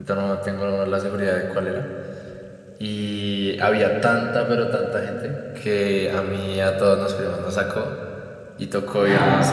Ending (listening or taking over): listening